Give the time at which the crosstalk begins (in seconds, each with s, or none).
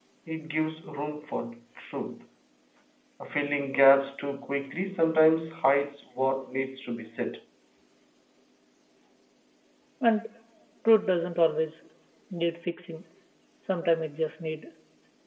none